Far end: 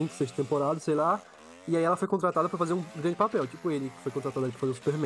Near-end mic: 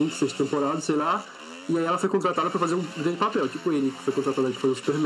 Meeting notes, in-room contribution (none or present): none